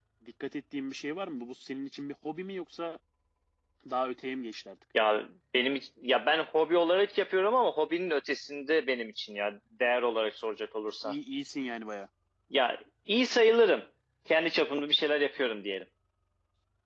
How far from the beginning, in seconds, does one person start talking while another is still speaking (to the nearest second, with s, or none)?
none